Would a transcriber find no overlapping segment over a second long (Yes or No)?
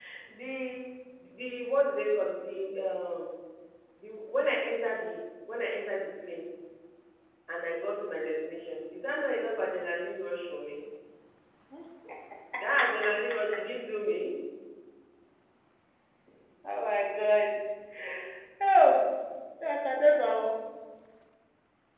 Yes